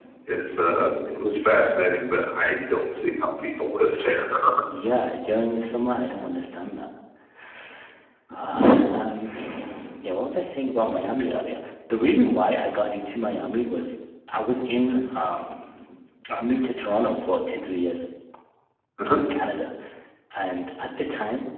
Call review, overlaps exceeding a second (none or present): none